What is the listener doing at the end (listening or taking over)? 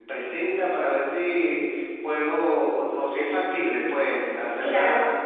listening